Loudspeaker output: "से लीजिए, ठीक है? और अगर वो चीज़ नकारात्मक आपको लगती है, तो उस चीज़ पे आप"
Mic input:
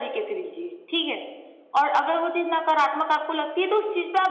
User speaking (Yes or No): No